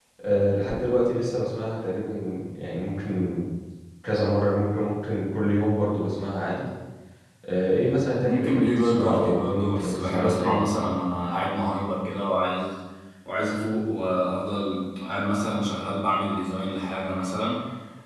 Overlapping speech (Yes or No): Yes